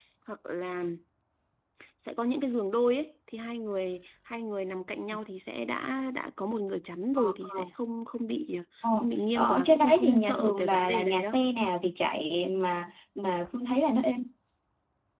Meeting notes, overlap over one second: present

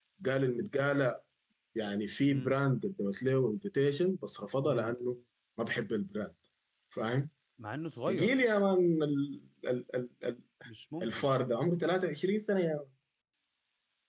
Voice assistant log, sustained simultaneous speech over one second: none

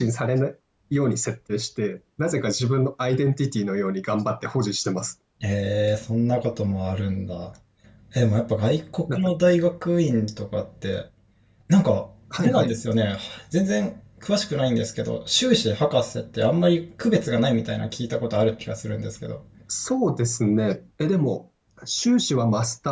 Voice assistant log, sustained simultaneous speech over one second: none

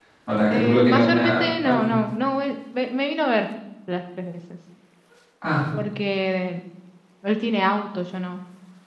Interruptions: present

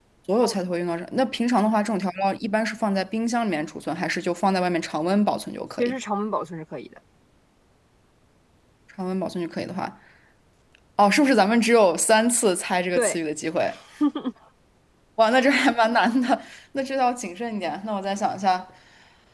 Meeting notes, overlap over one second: none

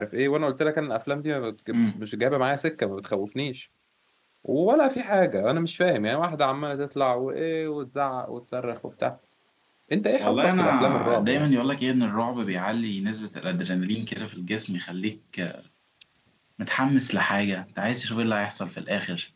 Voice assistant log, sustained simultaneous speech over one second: present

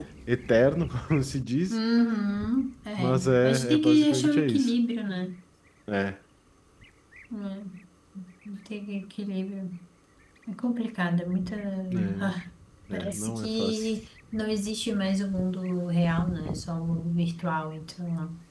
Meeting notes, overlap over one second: present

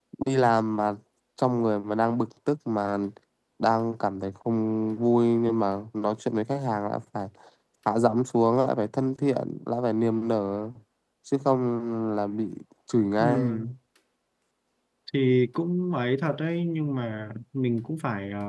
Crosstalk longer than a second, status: none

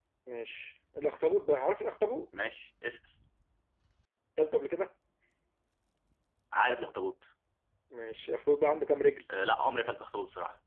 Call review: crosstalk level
none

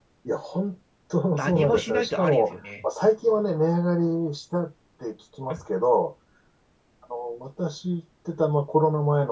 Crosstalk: present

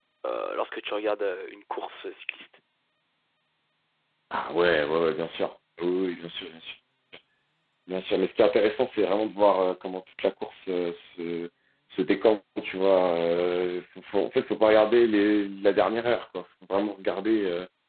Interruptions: none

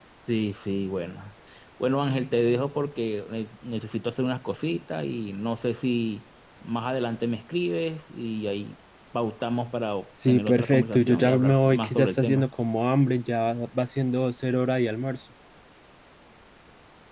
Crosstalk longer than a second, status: present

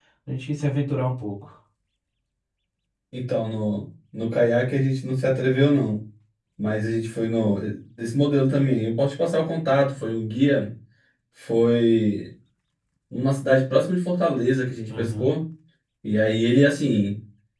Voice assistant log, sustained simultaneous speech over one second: none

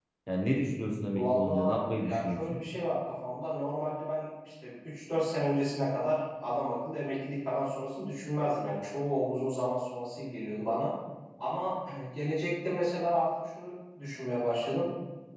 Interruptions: present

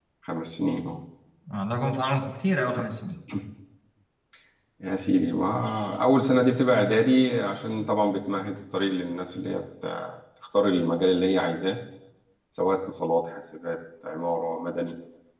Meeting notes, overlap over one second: none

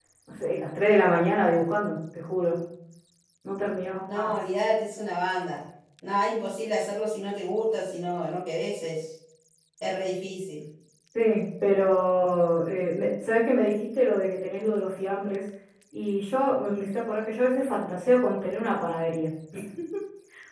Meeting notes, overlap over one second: none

